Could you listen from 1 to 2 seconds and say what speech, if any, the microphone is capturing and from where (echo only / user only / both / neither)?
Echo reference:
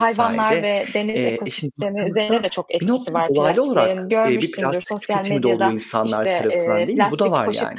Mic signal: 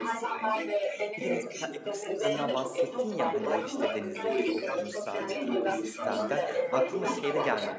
both